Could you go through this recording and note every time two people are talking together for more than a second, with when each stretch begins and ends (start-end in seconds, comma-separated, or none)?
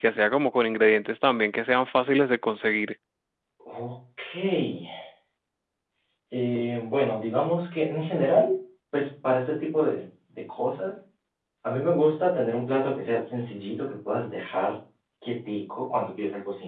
none